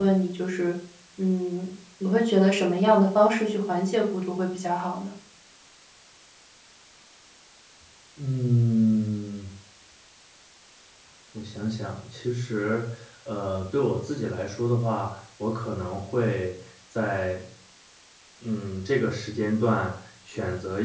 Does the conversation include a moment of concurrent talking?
No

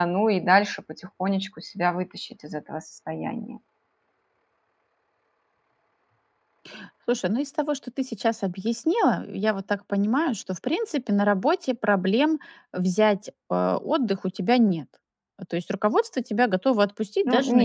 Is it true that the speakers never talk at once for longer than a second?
Yes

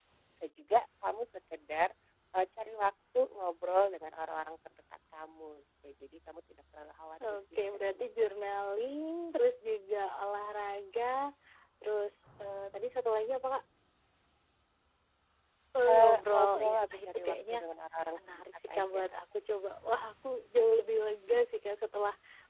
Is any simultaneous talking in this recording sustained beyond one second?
Yes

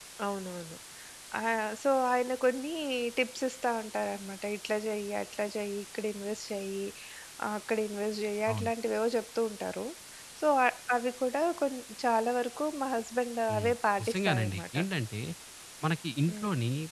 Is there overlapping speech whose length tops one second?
Yes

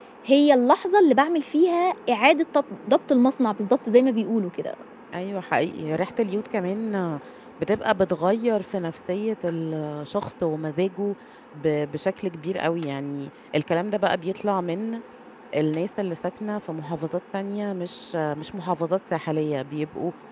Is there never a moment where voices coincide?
Yes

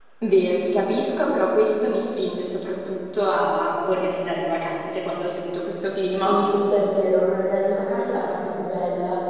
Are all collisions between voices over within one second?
Yes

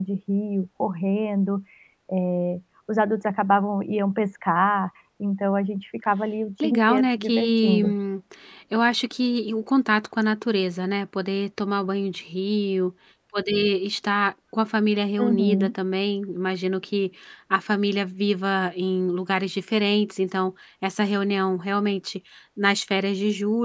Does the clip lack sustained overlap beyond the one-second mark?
No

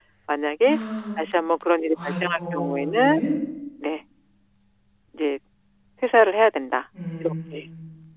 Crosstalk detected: Yes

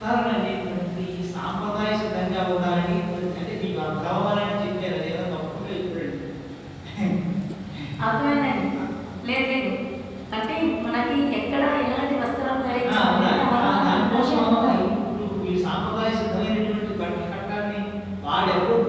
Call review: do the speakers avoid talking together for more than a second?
No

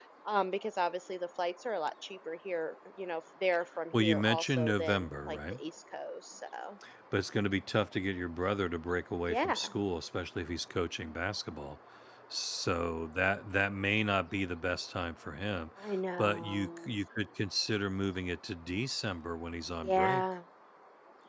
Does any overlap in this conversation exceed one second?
Yes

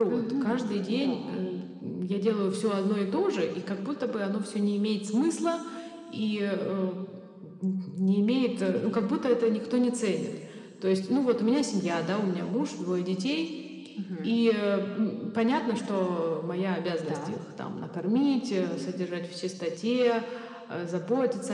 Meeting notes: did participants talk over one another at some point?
Yes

